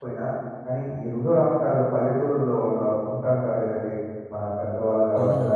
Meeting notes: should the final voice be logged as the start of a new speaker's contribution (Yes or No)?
No